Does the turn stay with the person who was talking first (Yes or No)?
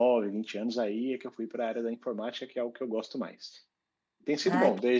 Yes